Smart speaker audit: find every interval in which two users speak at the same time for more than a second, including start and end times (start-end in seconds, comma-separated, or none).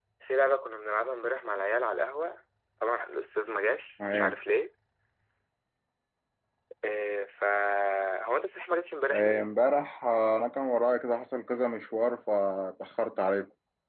none